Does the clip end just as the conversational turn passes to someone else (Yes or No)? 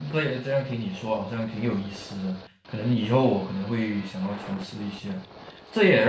No